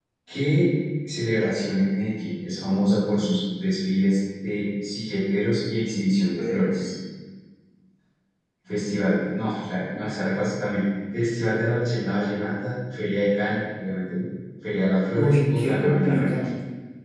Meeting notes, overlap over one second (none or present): present